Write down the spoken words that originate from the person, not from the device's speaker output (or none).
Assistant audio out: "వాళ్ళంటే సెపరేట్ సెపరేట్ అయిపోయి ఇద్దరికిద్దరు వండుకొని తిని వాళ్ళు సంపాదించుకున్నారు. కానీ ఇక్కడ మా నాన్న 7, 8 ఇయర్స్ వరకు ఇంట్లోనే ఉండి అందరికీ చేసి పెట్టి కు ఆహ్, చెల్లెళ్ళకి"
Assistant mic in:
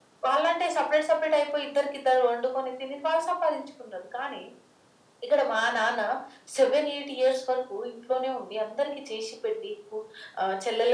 none